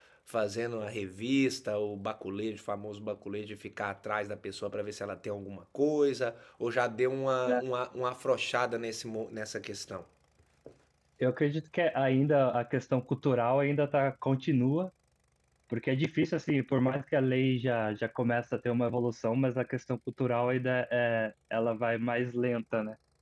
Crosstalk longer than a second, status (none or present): none